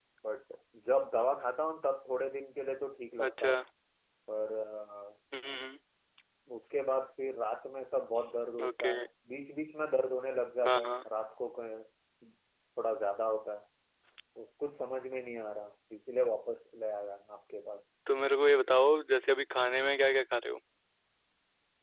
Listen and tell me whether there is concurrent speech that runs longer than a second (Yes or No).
No